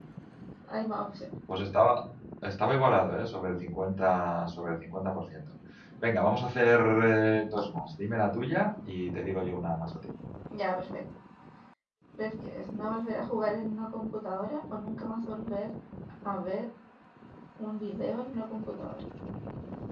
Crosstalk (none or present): none